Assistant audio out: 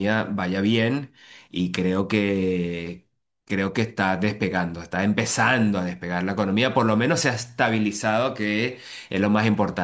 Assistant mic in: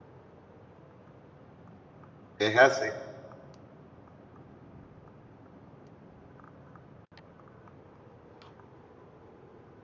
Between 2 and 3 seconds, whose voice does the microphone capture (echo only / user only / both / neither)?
user only